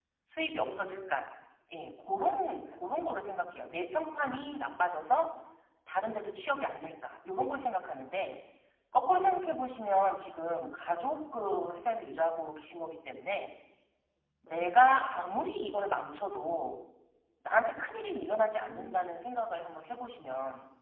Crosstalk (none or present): present